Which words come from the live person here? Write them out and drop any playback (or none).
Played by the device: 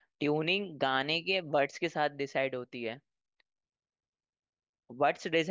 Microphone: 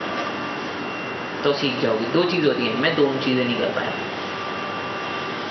तो सीख जाओगे दो चीज होती हैं मैं दोनों चीजें नहीं कर पाया